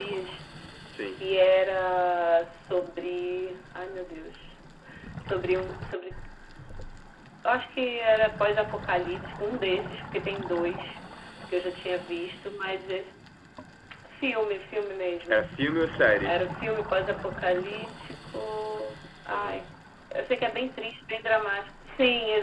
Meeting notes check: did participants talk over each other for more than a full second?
No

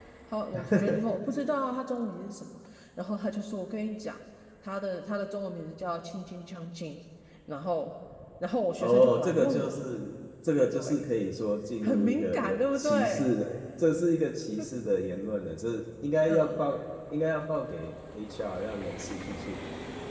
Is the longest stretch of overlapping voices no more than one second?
No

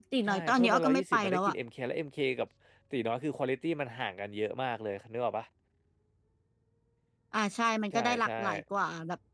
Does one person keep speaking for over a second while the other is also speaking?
Yes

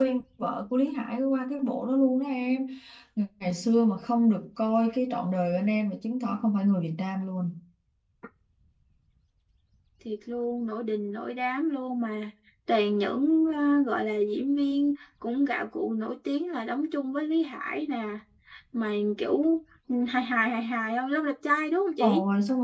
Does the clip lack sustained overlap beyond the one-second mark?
Yes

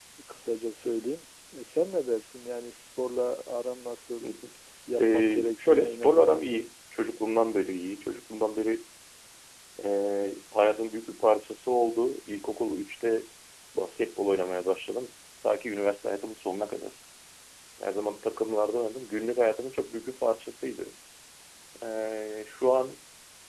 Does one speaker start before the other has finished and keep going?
Yes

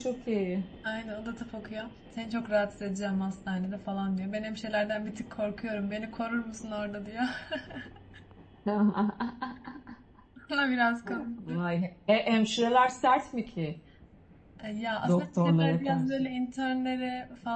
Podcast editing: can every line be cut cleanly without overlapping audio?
No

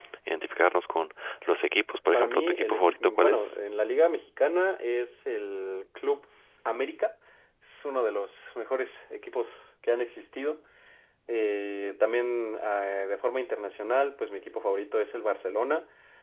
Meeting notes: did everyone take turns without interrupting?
No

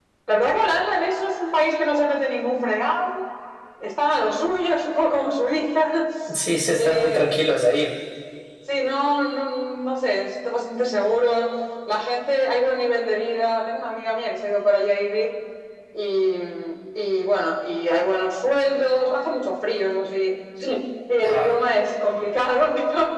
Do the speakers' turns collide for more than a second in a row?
No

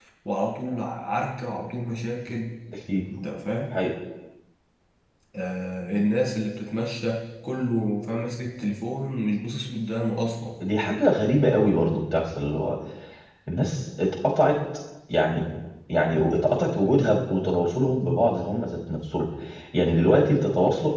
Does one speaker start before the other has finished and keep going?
No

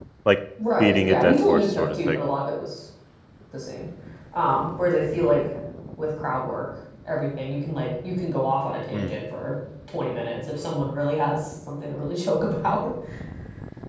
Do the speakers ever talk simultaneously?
Yes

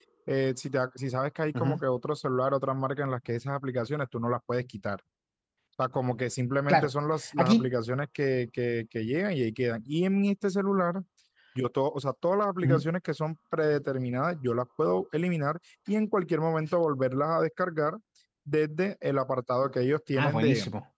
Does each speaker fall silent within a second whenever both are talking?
Yes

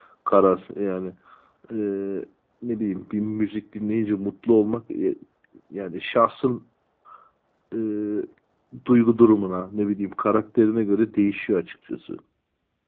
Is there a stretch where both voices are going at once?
No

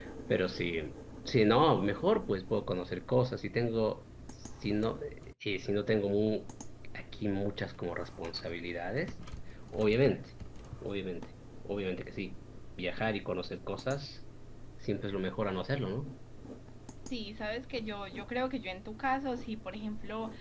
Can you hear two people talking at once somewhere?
No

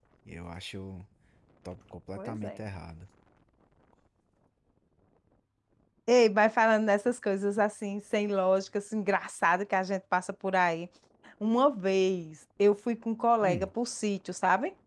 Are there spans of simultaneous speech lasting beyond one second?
No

